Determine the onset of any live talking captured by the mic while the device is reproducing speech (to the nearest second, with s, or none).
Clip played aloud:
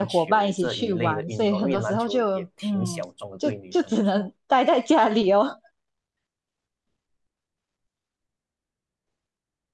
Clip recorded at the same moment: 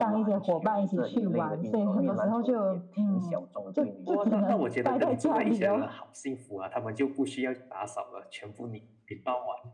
4 s